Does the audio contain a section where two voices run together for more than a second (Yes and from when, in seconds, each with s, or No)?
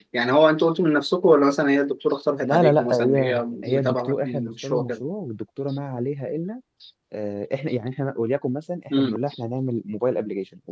Yes, from 2.4 s